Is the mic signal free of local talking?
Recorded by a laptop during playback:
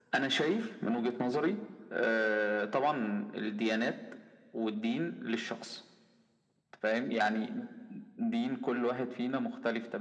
Yes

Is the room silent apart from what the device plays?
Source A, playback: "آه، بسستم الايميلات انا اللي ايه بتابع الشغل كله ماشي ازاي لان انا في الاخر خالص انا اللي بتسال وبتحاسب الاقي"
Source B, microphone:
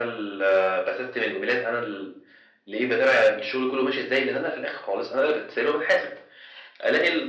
Yes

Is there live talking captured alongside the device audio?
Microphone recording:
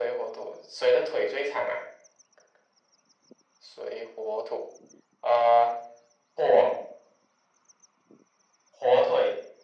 No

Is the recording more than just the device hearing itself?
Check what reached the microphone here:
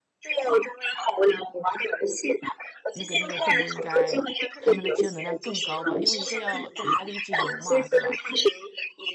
Yes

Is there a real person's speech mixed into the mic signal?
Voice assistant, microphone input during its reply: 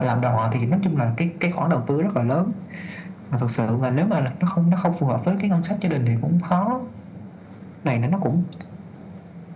No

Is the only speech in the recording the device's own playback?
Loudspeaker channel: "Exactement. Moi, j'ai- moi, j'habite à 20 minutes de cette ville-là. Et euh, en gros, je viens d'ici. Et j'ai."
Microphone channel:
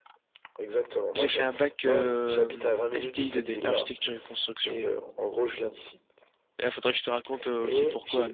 No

